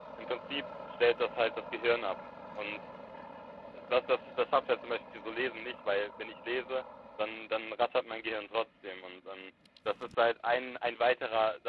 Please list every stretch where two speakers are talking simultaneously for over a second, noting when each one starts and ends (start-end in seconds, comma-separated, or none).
none